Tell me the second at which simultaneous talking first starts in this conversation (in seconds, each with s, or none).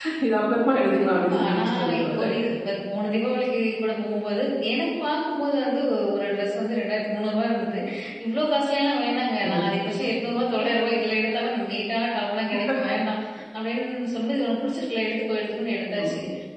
0.9 s